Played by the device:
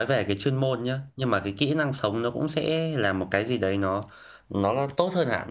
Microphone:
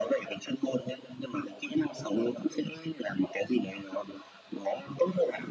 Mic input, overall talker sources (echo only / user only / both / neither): echo only